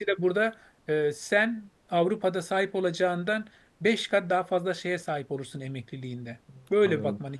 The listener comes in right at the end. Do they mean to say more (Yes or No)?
Yes